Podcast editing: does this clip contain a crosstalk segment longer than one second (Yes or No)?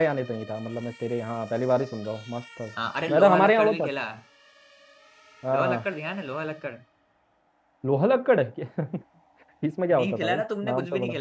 Yes